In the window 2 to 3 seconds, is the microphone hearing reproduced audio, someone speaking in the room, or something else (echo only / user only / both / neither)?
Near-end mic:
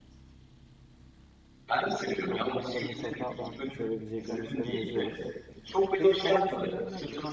both